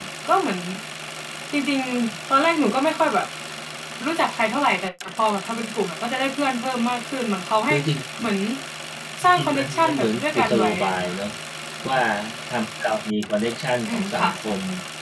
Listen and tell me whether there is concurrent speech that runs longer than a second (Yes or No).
Yes